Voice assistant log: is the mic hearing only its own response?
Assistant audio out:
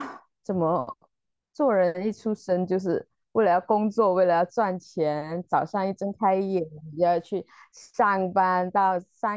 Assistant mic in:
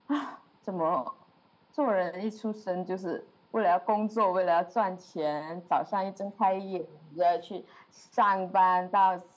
Yes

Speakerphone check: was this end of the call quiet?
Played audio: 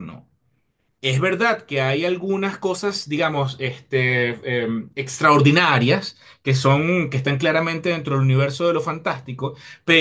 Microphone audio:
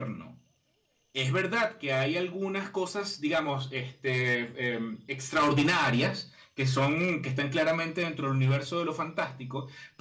Yes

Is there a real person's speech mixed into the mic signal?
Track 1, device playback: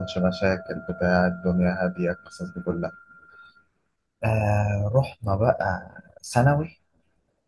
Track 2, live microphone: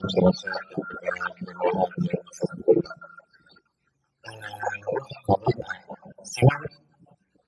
No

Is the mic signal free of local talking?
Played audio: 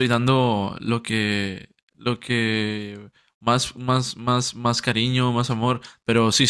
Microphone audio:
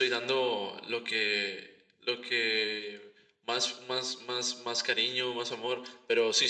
Yes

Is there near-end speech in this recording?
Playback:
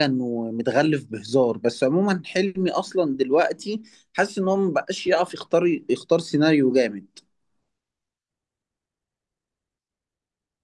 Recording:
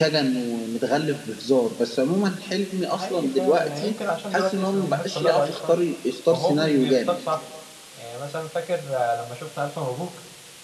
Yes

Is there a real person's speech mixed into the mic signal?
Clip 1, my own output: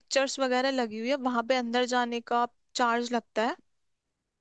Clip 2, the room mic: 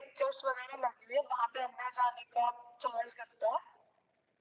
No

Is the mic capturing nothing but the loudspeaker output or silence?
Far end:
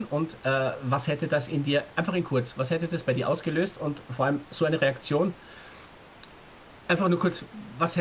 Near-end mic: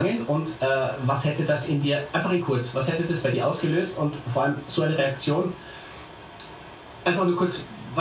Yes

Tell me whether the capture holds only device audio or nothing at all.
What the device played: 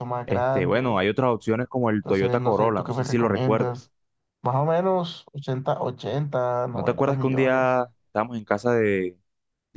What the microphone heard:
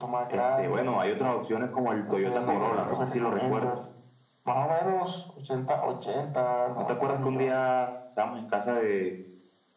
No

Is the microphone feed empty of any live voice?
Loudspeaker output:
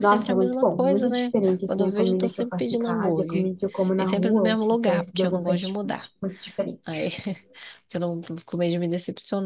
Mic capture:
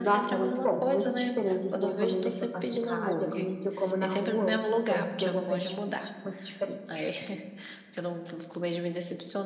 Yes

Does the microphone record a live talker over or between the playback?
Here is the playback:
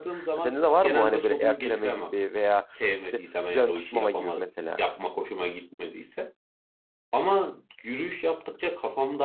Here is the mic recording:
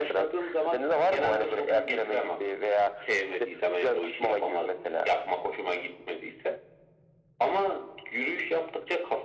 No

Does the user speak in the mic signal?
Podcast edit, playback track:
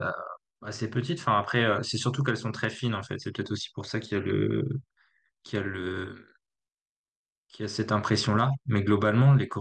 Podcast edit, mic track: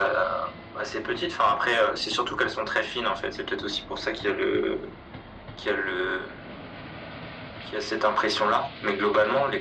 No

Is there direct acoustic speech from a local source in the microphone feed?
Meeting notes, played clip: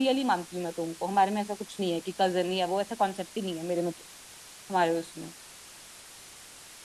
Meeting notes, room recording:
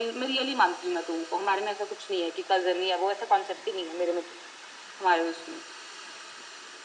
No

